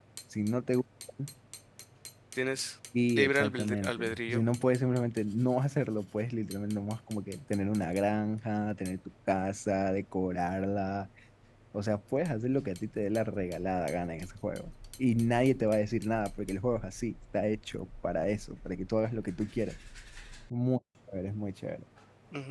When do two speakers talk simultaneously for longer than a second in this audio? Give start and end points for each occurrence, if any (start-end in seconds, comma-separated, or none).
3.2-4.5